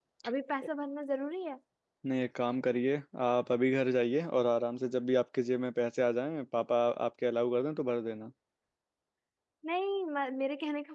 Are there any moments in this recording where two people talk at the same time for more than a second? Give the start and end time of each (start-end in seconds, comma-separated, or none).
none